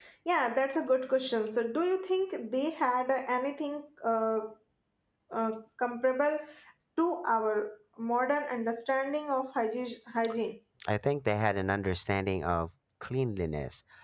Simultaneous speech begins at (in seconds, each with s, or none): none